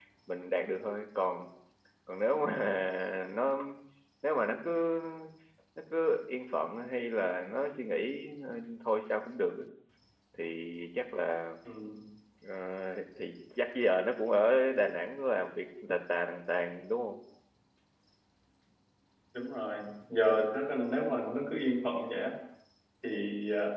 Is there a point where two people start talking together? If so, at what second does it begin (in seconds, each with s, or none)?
none